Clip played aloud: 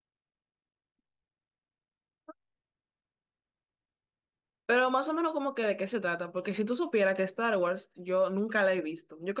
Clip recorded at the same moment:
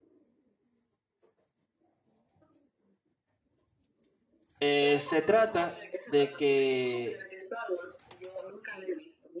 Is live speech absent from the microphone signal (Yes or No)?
No